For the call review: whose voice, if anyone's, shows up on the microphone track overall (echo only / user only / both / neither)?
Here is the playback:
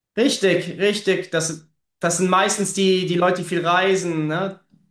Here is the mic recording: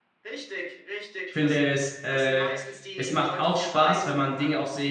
both